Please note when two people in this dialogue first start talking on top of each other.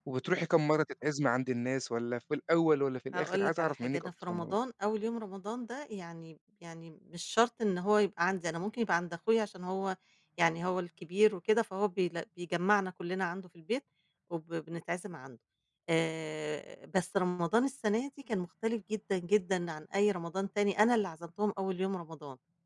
3.1 s

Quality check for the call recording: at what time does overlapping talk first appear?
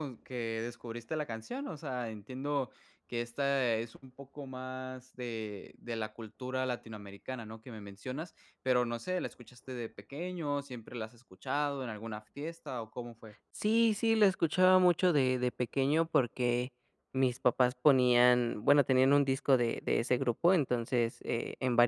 none

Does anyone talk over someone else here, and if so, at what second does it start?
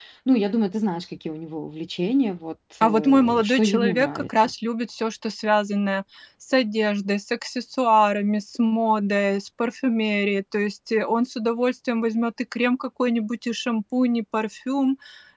2.8 s

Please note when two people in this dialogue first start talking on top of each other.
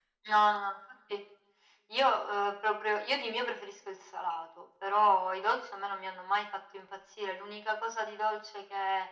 none

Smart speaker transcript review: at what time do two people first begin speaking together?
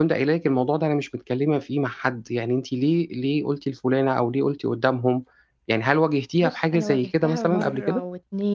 6.4 s

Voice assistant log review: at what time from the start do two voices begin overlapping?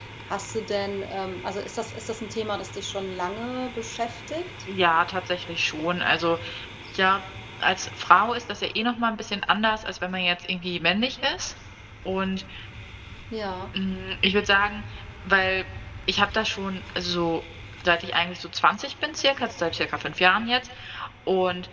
none

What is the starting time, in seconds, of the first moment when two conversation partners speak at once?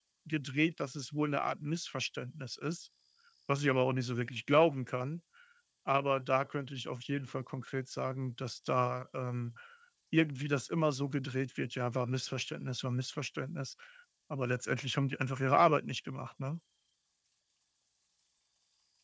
none

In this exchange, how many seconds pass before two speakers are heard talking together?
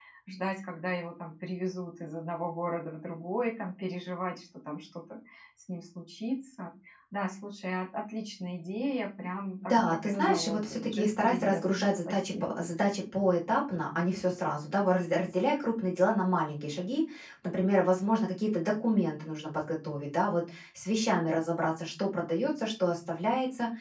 9.6 s

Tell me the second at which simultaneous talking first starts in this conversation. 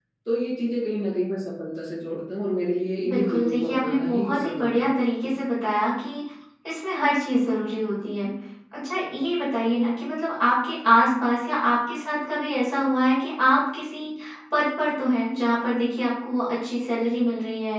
3.0 s

